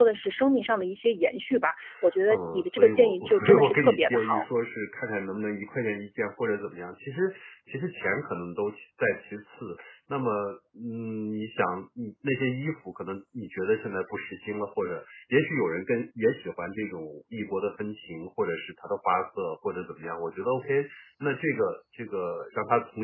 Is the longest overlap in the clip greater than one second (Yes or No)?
Yes